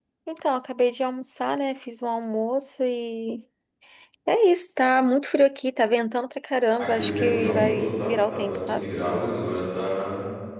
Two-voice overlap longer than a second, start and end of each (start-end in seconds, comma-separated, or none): 6.8-8.8